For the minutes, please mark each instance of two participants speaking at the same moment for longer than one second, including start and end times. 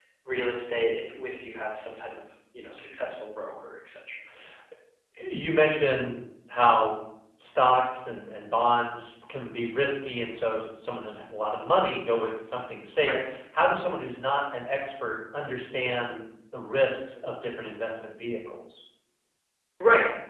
none

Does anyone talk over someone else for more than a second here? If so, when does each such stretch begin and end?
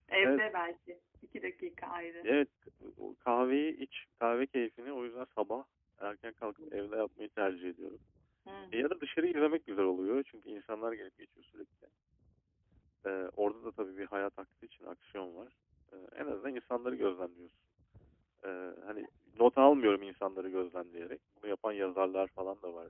none

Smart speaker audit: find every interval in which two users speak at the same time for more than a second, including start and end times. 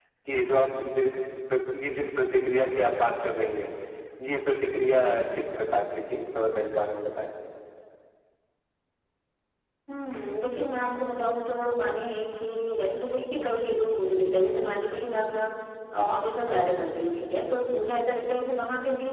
none

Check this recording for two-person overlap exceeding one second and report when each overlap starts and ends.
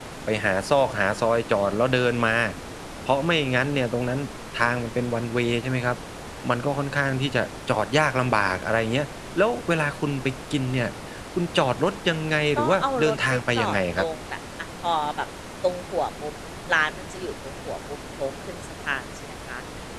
12.6-14.1

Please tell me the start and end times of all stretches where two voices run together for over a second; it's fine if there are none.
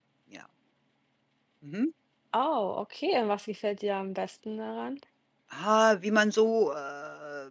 none

